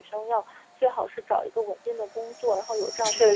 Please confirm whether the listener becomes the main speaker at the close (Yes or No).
No